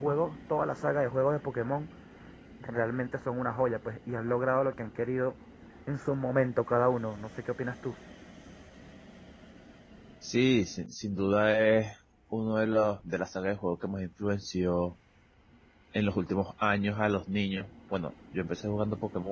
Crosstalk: none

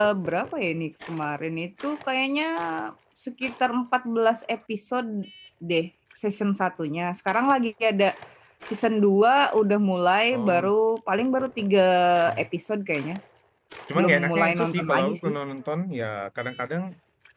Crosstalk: present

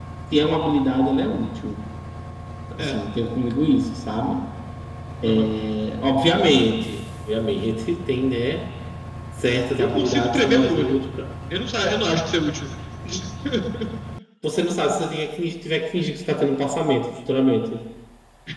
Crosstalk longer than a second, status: present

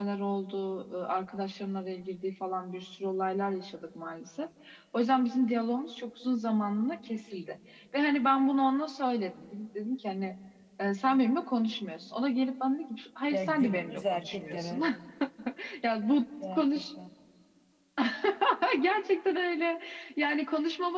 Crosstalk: present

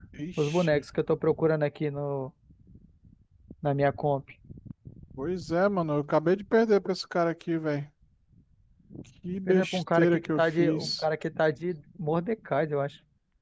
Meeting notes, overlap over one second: present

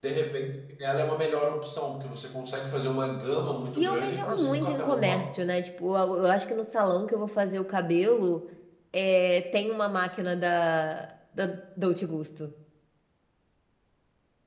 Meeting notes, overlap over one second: present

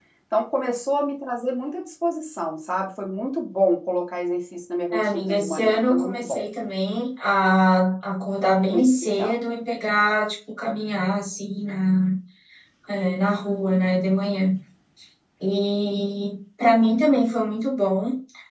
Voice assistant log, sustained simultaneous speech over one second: present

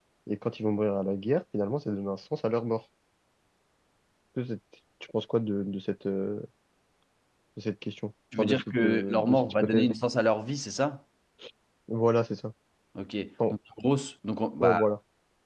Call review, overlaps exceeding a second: present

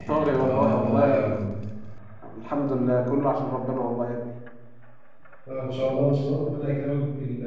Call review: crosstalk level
present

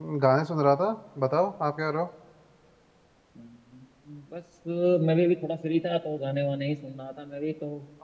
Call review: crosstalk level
none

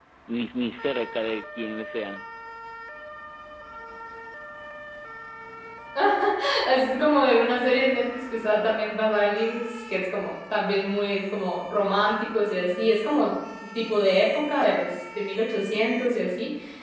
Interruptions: none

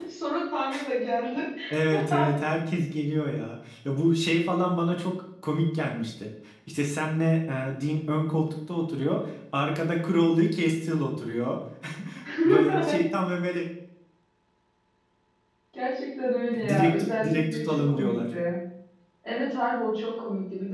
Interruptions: present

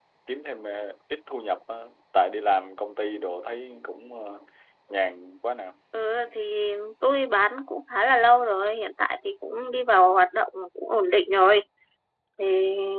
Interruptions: none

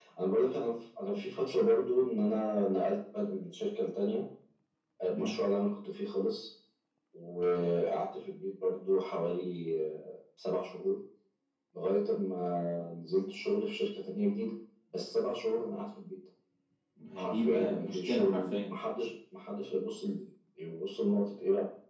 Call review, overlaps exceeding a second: present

